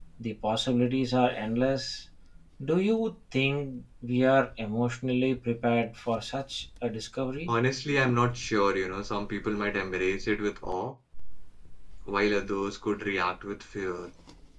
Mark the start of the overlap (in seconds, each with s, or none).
none